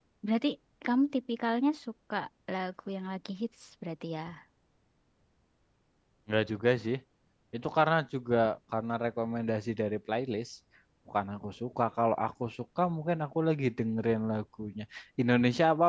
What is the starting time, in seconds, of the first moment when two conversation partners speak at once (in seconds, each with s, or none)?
none